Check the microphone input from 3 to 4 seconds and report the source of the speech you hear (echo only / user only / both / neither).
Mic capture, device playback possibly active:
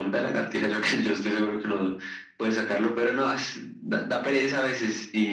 echo only